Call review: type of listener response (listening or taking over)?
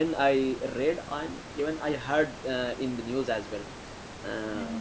listening